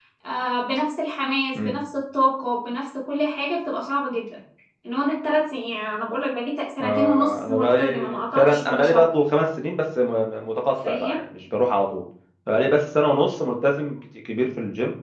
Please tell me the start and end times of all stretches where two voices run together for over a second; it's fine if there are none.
6.8-9.1

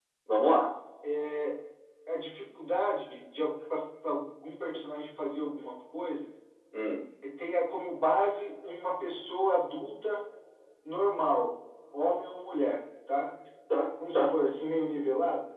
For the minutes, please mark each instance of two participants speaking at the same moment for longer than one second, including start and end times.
none

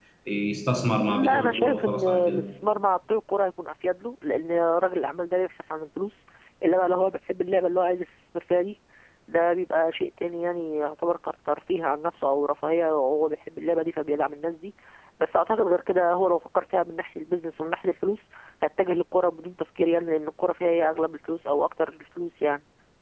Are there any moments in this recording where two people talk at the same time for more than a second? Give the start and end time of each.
1.1-2.4

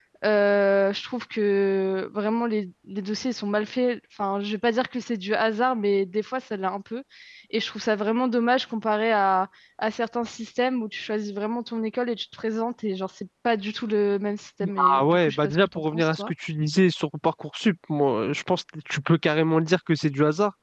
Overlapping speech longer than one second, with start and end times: 14.8-16.3

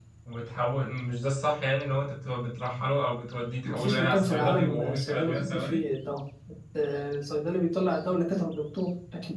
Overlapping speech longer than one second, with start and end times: 3.6-5.8

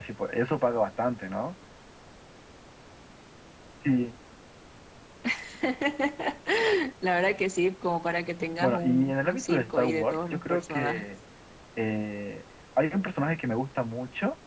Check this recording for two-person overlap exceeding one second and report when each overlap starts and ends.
8.6-11.1

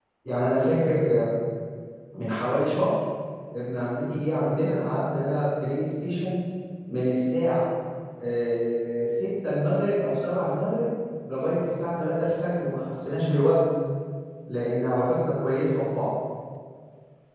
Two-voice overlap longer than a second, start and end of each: none

